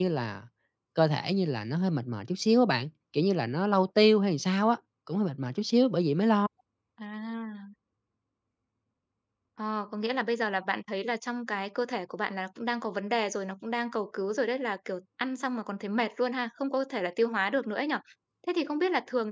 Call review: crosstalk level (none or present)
none